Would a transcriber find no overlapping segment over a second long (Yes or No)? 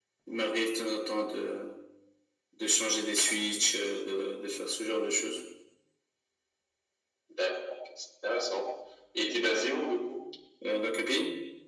Yes